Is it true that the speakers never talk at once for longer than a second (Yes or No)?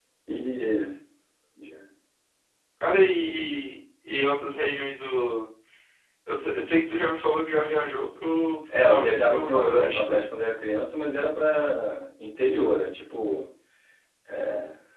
No